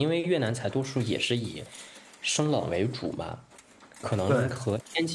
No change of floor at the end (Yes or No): Yes